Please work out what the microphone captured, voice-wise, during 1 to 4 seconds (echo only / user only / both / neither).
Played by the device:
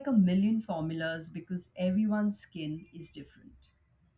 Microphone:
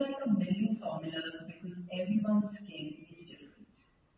echo only